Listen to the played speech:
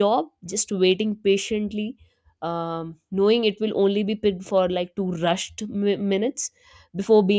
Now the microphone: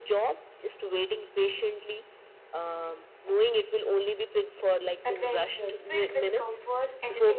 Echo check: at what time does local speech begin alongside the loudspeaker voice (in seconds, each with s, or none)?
5.0 s